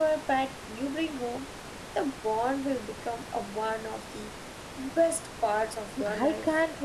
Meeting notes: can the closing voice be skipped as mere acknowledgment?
No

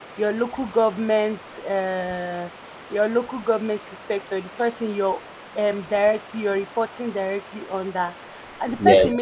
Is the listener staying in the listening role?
Yes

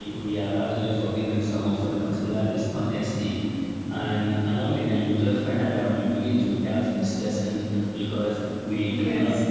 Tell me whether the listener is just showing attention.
Yes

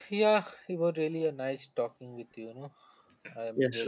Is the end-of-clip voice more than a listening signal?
Yes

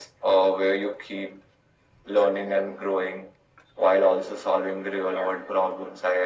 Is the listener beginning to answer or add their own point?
No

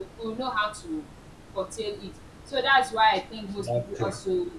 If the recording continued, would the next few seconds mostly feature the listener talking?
No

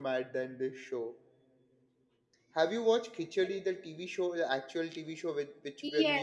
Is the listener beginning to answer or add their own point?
Yes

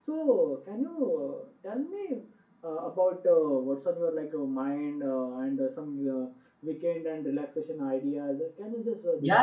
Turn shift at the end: Yes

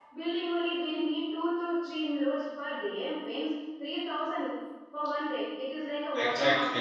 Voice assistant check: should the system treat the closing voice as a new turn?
Yes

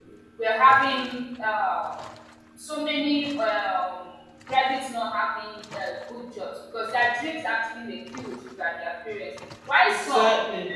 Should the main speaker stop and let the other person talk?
No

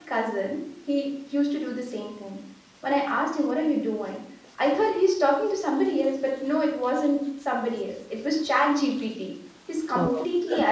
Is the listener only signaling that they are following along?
Yes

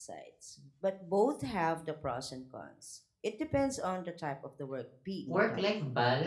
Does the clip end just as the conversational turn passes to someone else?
Yes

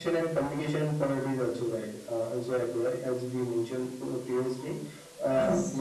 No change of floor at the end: Yes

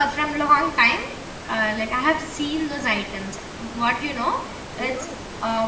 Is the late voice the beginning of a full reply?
No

